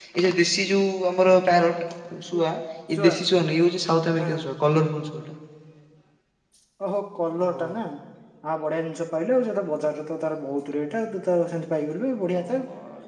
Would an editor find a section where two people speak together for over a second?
No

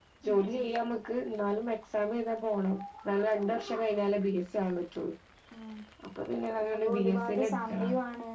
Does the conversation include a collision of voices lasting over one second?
Yes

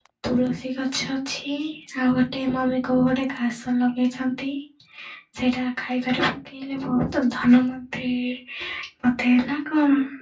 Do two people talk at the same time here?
No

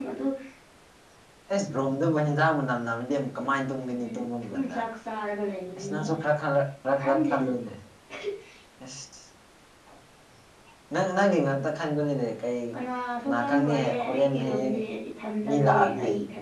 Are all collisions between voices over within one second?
No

